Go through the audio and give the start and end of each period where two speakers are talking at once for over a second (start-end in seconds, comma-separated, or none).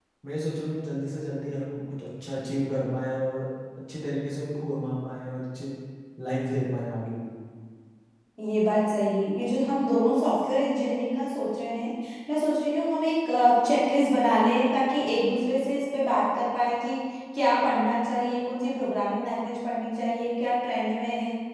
none